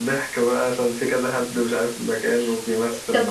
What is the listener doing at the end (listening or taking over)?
taking over